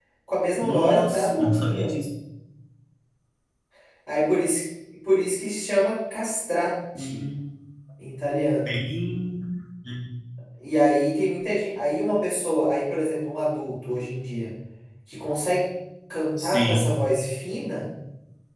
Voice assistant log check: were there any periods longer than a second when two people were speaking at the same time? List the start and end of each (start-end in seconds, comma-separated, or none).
0.6-1.9